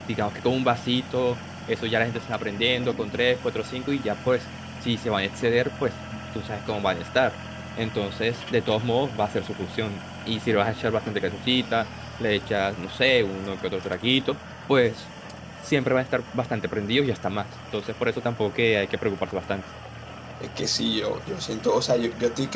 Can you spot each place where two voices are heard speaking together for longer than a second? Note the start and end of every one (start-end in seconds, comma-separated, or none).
none